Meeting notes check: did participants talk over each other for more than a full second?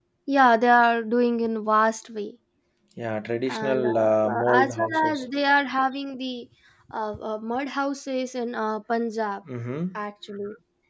Yes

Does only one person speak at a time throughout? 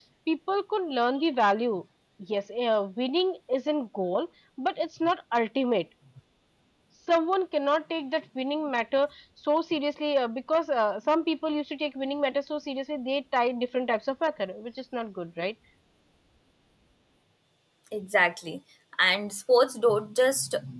Yes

